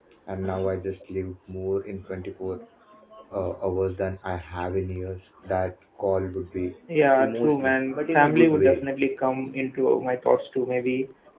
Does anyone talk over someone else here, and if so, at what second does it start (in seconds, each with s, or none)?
7.2 s